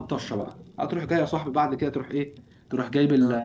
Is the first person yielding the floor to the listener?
No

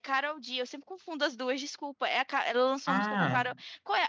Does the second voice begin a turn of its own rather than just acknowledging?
No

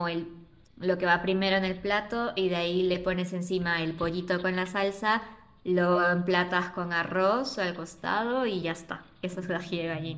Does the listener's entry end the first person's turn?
Yes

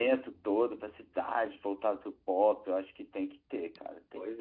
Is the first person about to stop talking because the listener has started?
Yes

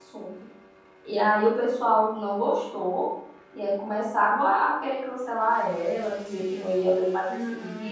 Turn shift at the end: No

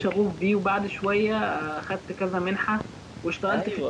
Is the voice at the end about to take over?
Yes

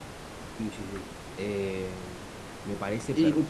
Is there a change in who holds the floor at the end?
Yes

